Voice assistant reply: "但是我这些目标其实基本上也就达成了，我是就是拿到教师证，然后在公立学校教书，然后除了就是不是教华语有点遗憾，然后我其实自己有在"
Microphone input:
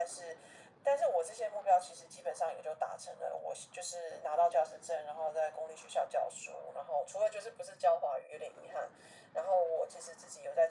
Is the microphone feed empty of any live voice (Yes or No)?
Yes